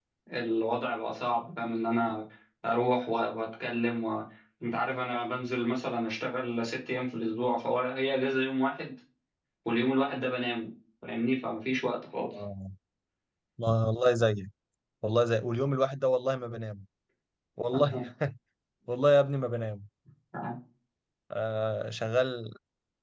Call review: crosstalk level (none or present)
none